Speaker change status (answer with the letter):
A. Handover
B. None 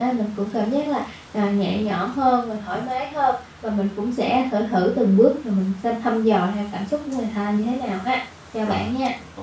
A